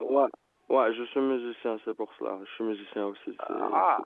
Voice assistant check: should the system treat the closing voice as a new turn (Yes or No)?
Yes